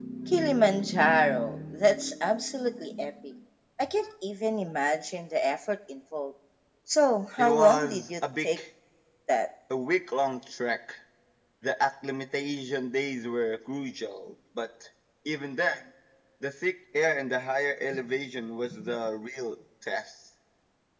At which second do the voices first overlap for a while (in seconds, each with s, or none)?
7.4 s